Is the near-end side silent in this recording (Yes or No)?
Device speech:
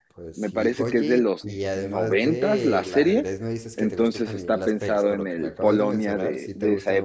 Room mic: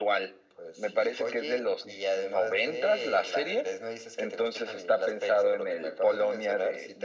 Yes